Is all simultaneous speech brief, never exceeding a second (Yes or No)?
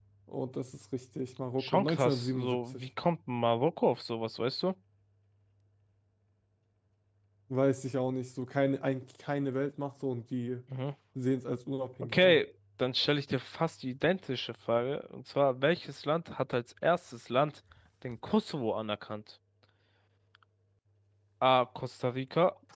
No